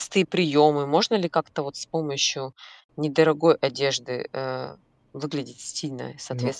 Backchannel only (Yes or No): No